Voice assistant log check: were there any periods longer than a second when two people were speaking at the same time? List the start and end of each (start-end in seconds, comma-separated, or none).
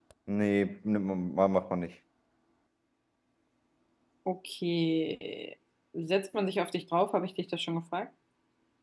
none